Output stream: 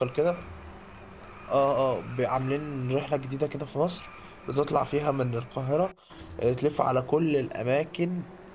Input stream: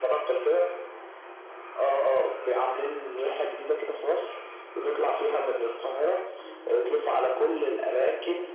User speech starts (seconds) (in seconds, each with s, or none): none